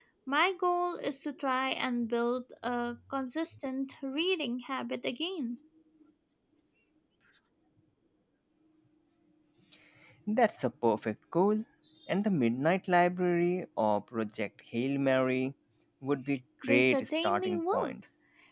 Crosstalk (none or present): present